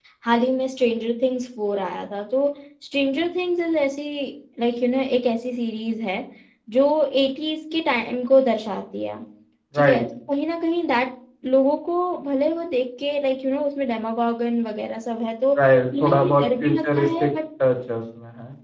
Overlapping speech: Yes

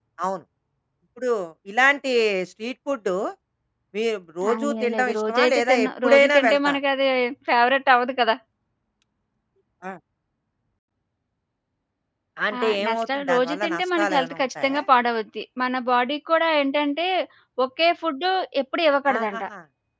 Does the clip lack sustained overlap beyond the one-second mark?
No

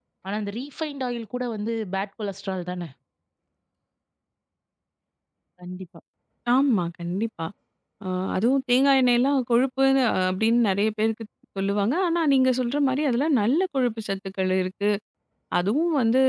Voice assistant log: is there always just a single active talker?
Yes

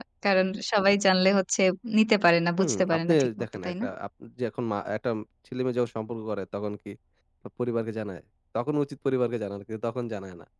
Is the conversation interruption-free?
No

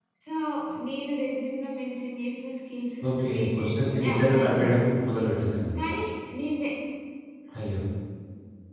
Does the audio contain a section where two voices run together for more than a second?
Yes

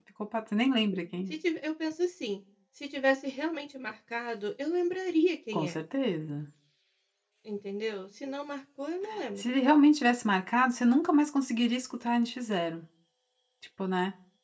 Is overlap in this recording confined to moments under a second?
Yes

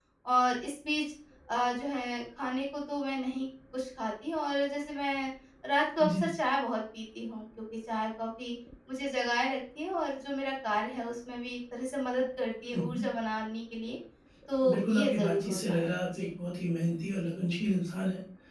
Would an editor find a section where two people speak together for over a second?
Yes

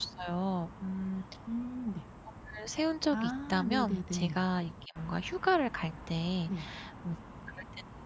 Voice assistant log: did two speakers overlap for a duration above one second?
Yes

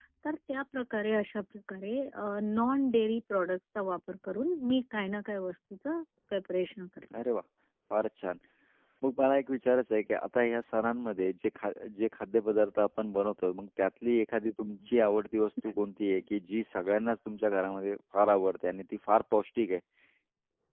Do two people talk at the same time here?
No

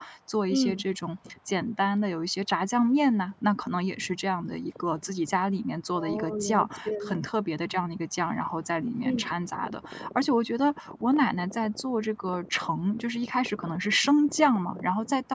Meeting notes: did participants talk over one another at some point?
Yes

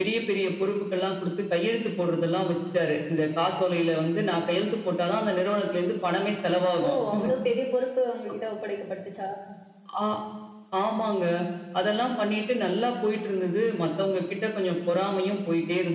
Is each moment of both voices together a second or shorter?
Yes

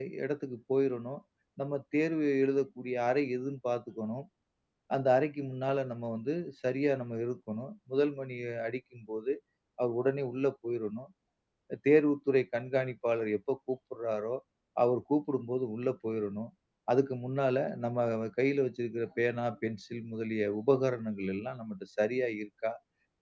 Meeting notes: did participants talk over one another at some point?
No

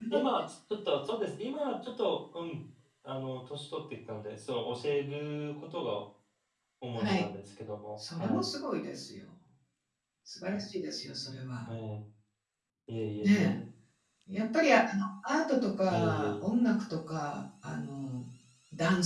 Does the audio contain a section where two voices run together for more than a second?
No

